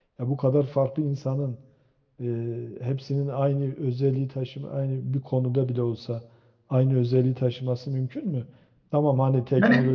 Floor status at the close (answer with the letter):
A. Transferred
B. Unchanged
A